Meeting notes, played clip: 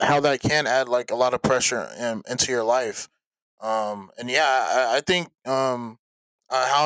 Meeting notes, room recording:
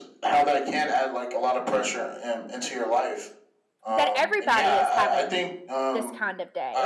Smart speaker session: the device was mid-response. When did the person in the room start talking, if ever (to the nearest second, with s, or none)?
4 s